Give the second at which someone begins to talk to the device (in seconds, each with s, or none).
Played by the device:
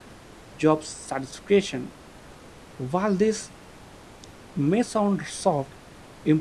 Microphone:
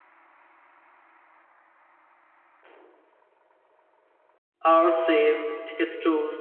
4.6 s